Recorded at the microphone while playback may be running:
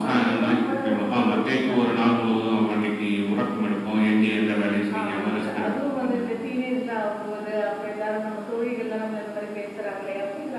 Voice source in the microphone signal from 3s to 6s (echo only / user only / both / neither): echo only